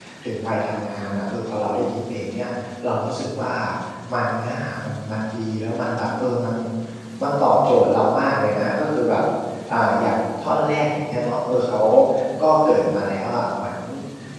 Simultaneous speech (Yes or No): No